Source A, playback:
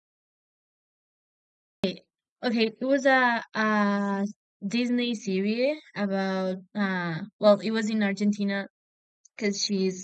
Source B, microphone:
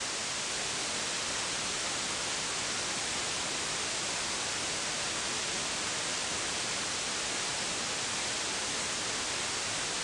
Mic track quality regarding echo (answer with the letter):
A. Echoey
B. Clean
B